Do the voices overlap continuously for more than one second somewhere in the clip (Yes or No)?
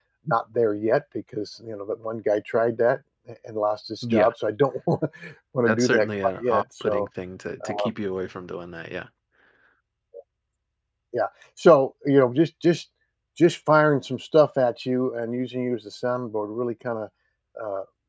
Yes